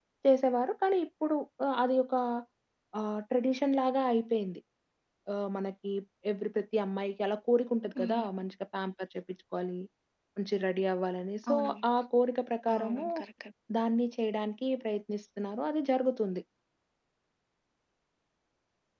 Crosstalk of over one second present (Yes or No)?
No